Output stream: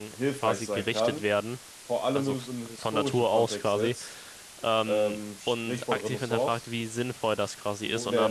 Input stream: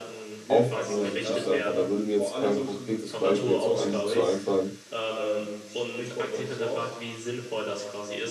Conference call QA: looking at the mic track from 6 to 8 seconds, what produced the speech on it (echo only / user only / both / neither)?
echo only